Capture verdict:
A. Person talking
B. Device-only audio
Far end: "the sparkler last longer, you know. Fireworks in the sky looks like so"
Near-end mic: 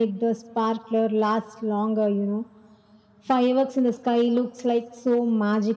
B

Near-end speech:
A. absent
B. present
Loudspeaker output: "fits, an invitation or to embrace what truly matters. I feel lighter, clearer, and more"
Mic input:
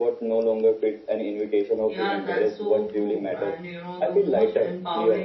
B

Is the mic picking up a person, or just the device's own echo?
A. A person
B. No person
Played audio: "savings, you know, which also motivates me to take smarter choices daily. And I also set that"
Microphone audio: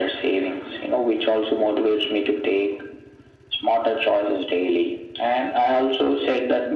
B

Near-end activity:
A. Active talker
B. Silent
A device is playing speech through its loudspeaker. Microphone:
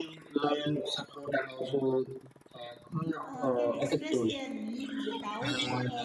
A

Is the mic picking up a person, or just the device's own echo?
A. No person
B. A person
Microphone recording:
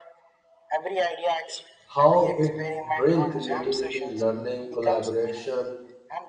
B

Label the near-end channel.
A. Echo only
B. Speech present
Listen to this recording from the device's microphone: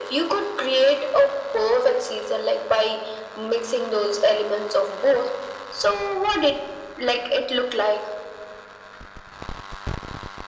A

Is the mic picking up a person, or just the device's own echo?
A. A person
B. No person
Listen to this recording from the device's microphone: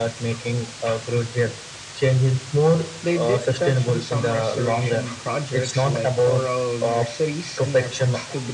B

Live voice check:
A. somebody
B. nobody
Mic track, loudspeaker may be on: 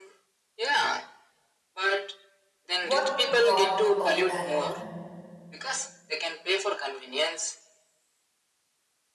A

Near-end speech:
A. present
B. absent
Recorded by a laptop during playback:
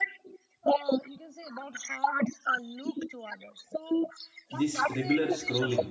A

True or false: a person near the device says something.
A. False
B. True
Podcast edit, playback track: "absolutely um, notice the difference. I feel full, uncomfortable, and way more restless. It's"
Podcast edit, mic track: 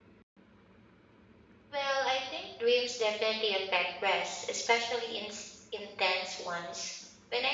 B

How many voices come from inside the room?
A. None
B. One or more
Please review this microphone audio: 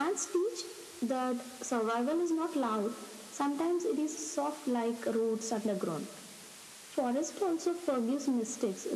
A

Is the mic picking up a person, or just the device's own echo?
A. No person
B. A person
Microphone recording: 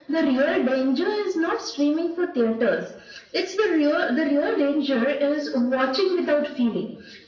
A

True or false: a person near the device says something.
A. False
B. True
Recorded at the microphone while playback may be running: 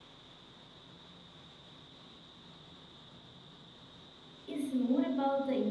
B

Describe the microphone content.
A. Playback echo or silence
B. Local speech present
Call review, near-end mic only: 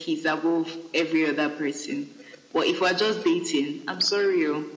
A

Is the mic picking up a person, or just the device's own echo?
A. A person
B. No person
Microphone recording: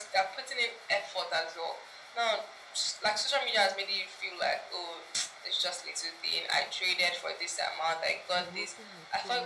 A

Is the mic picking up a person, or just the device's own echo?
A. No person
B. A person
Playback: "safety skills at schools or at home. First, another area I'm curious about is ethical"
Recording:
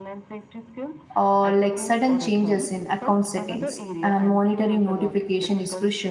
B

